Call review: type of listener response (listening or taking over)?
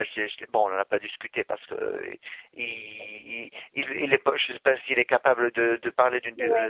listening